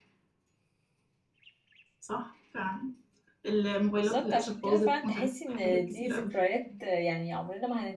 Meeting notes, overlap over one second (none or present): present